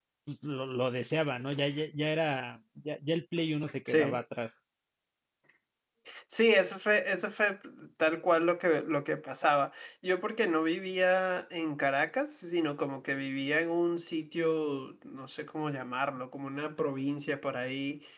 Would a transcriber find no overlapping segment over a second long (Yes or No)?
Yes